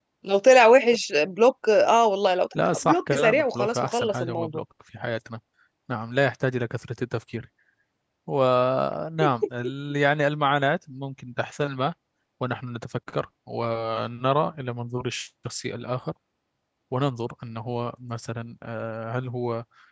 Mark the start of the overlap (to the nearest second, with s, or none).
3 s